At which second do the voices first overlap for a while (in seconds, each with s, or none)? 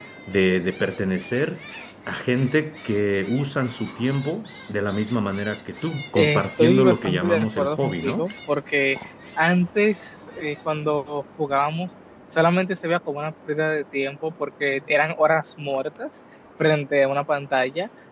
6.2 s